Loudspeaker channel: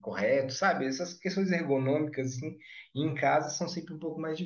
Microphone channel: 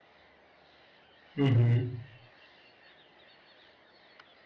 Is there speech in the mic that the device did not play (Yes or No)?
Yes